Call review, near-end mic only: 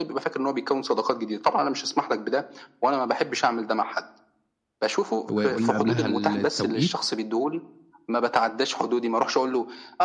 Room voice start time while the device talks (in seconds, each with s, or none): 5.3 s